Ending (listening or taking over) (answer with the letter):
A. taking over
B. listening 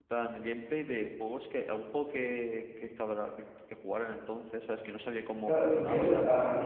A